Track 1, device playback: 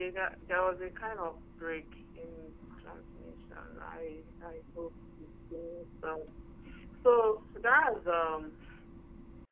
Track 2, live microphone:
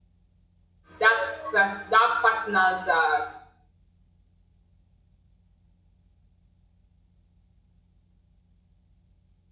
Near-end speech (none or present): present